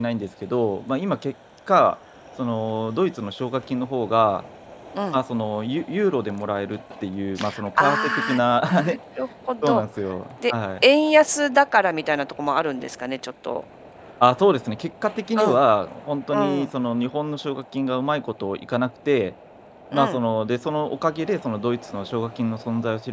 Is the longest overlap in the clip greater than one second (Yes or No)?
Yes